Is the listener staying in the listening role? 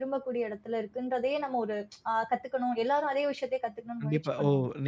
No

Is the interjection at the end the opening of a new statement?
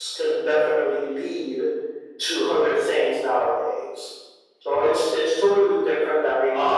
Yes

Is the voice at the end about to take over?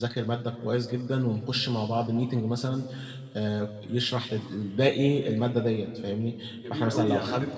Yes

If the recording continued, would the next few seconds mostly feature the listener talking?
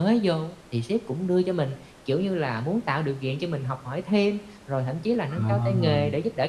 No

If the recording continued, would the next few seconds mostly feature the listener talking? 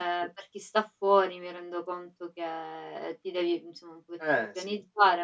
No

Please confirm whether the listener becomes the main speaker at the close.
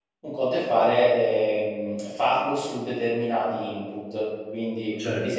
Yes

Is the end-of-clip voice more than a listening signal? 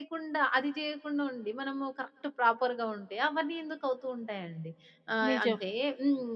No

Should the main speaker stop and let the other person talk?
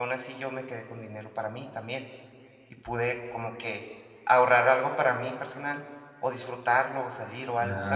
Yes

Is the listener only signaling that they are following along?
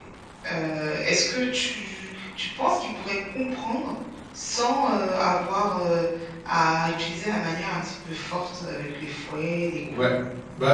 No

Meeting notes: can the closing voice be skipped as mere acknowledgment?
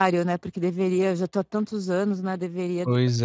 Yes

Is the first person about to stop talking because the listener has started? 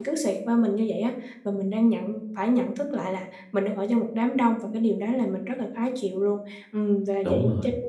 No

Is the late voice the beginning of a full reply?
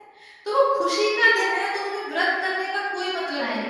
Yes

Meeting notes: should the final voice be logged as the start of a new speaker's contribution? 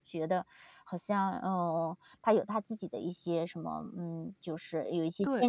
Yes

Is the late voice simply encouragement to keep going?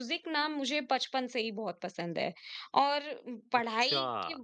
Yes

